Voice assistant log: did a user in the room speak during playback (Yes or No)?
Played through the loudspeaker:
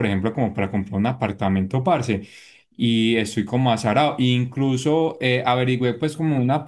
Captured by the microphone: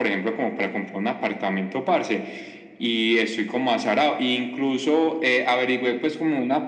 No